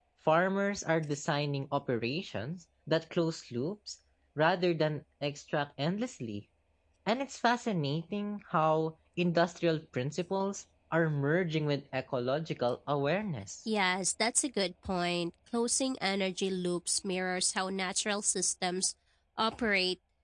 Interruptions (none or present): none